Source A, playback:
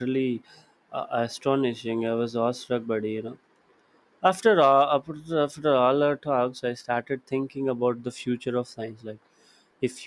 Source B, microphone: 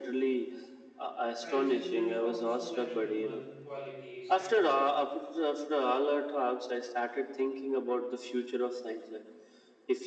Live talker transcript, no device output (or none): Science is built from so many human qualities, and